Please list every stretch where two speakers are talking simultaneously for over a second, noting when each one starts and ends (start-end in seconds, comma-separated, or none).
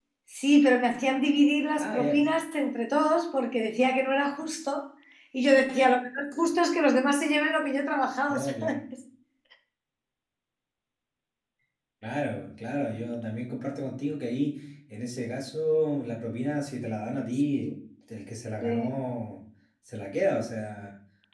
none